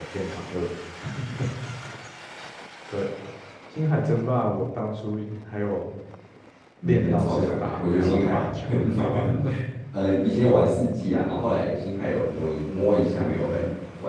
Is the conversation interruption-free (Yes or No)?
No